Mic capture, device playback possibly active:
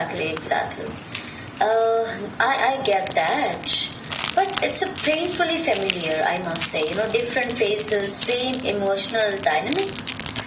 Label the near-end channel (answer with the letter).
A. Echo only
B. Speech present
A